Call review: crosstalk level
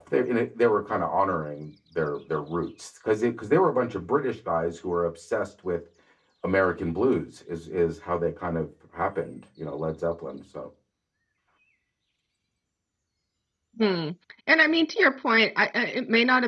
none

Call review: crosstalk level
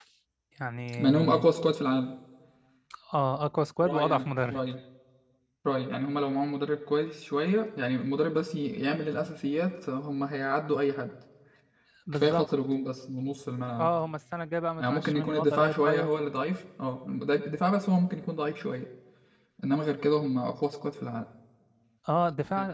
present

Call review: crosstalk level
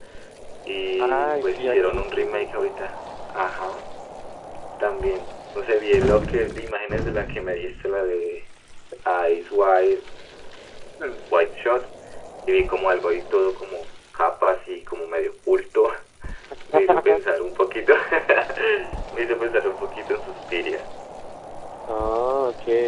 present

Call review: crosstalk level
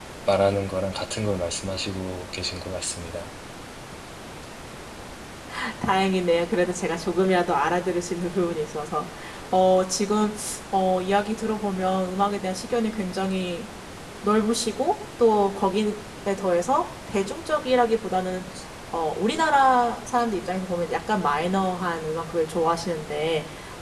none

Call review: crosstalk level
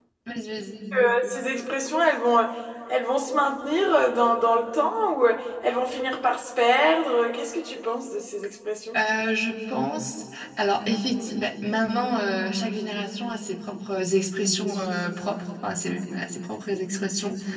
none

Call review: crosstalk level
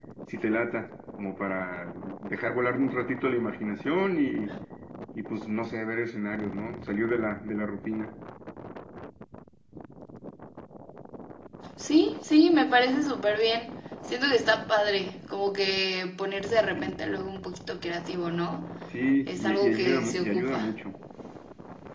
present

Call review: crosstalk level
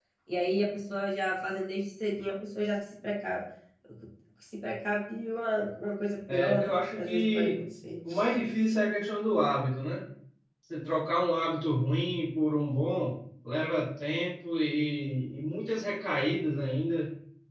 present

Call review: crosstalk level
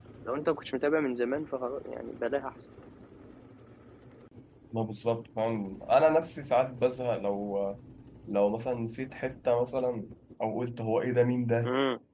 none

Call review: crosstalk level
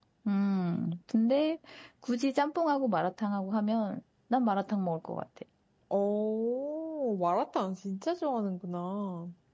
none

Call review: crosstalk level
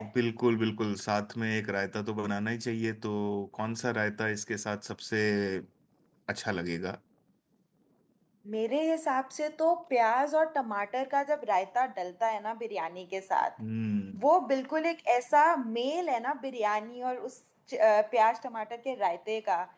none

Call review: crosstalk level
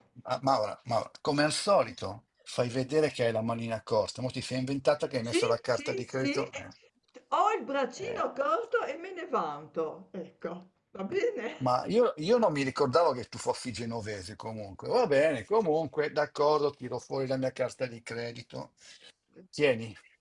present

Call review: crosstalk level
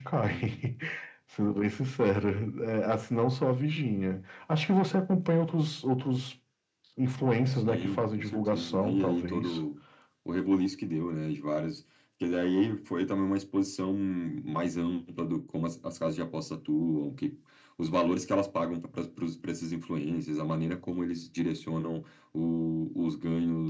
present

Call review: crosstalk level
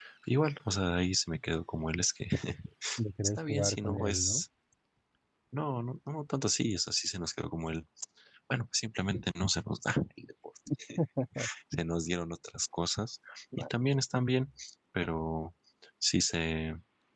present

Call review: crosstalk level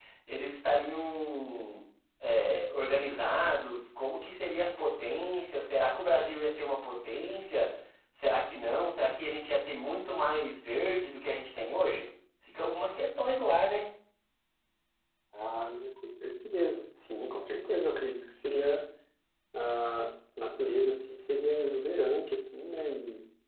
none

